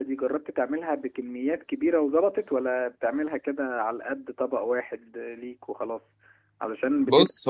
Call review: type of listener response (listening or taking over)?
listening